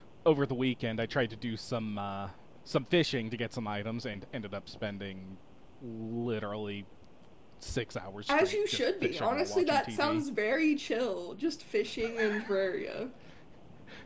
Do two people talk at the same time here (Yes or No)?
Yes